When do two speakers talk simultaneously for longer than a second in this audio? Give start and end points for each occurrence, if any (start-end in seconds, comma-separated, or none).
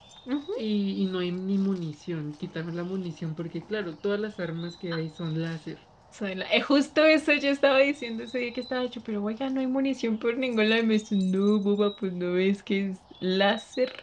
none